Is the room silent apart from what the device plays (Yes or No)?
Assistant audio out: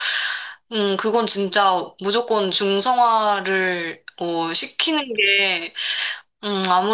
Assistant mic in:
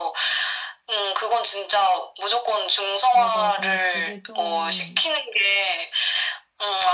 No